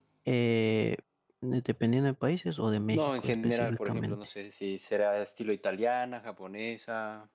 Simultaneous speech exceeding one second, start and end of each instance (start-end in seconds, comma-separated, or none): 2.9-4.2